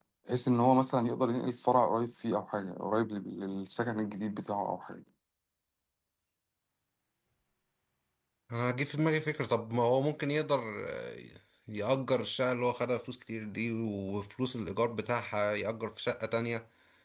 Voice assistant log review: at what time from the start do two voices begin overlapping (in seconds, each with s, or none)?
none